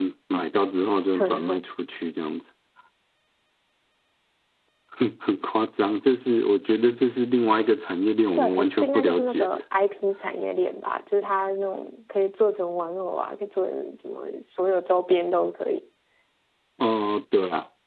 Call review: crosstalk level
present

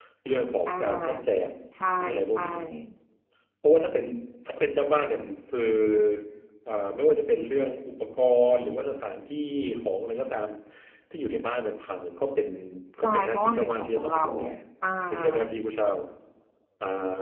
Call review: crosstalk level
present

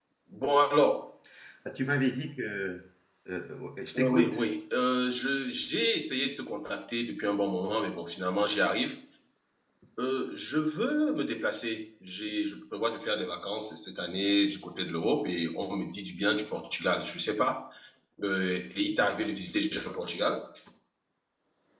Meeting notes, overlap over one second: none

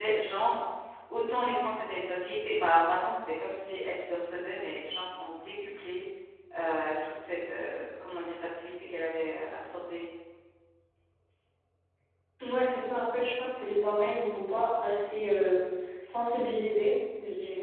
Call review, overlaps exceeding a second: none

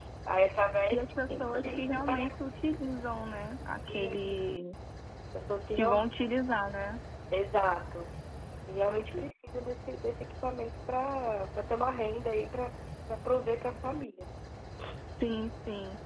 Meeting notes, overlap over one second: present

